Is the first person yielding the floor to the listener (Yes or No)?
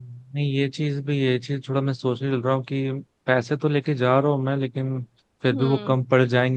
No